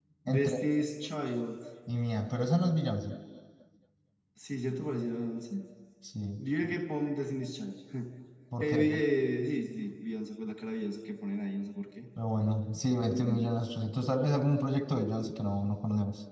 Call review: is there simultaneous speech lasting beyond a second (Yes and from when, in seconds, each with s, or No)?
No